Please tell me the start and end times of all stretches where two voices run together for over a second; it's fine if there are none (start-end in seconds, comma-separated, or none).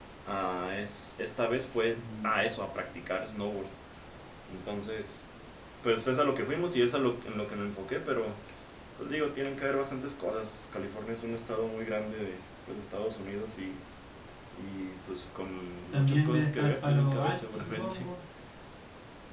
15.9-18.1